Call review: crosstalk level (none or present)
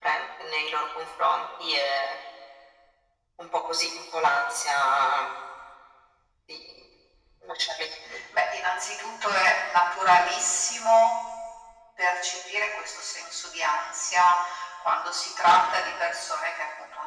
none